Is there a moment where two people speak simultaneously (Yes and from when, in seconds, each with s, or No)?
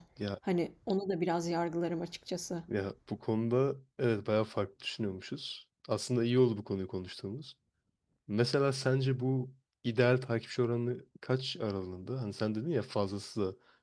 No